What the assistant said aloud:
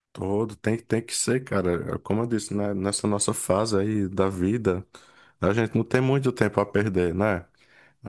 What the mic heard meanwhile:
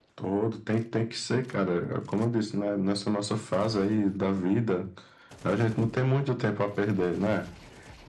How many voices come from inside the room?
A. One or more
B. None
B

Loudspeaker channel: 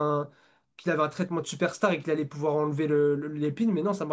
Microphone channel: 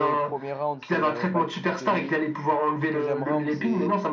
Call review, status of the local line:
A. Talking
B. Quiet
A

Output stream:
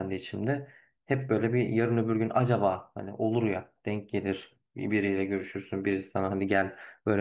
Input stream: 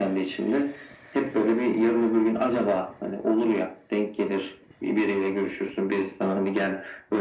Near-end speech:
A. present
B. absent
B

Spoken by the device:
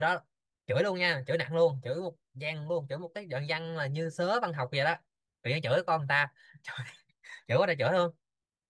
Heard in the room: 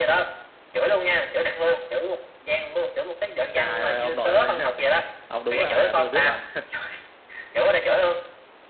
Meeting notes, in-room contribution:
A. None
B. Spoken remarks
B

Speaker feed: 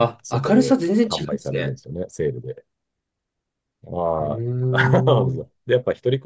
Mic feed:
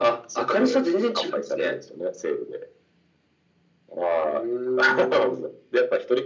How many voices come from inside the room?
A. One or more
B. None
B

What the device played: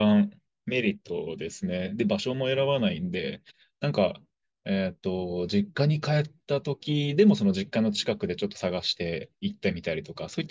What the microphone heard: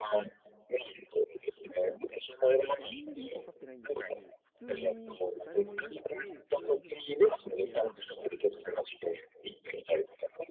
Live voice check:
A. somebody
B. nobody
A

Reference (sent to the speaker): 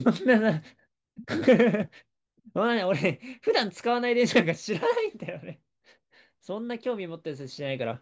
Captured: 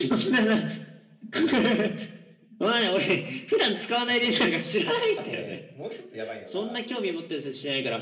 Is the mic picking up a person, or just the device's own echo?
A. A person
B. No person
A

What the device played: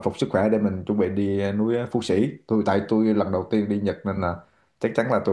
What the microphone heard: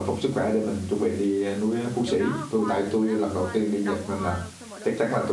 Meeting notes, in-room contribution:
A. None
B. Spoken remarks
B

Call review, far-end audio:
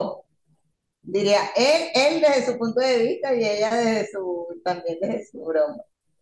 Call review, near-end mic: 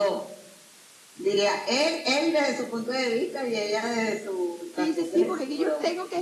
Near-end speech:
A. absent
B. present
B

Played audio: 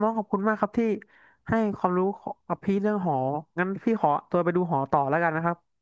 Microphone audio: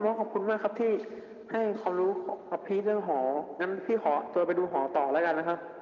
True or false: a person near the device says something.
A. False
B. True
A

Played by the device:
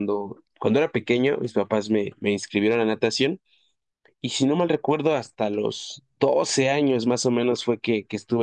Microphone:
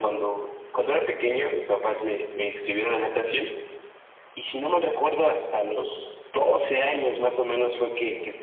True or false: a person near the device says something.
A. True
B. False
B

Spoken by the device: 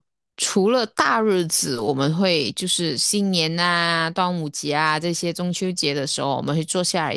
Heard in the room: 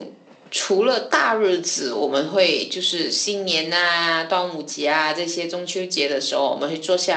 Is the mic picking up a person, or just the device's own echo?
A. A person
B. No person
B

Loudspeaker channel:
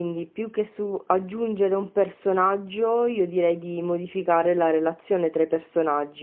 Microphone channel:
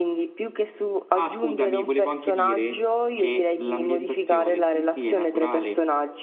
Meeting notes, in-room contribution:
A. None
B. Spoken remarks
B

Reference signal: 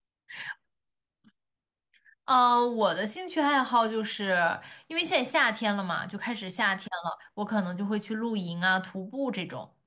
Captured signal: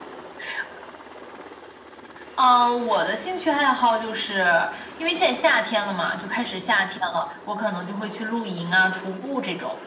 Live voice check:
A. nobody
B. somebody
A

